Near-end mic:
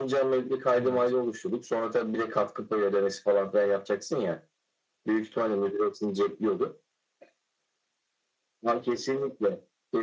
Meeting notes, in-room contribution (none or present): present